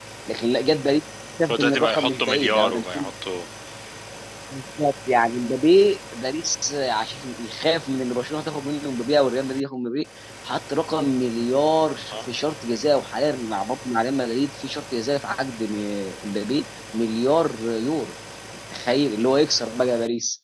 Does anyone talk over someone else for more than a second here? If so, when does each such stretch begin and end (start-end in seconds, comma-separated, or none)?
1.4-3.1